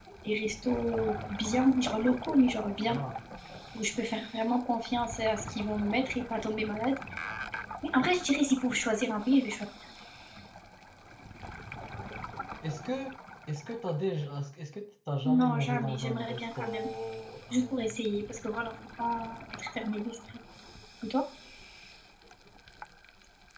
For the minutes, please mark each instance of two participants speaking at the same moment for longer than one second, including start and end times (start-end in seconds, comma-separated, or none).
15.2-16.9